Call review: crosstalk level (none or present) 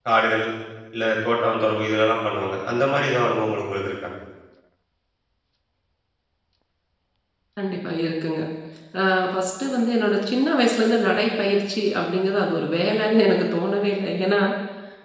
none